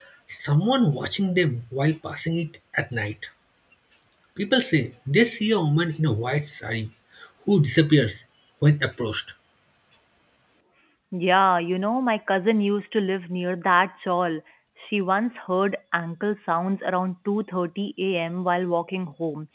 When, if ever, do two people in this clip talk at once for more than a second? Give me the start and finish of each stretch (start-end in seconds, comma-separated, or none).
none